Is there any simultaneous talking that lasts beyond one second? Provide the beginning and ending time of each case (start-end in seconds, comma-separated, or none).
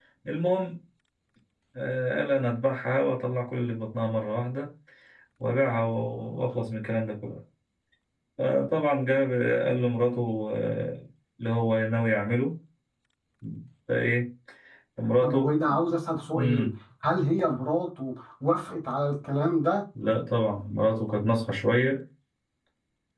none